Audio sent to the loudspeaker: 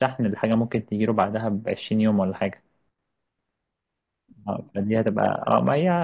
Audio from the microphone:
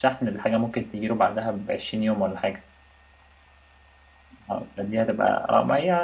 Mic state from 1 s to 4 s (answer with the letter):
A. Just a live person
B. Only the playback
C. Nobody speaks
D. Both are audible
B